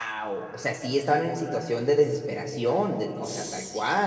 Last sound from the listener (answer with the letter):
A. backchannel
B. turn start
B